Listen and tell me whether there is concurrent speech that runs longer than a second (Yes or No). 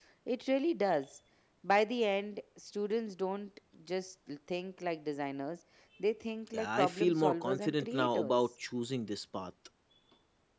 Yes